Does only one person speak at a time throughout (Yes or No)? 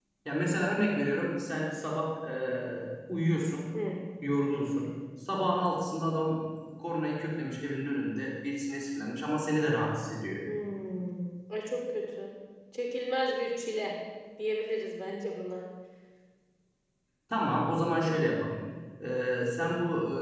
Yes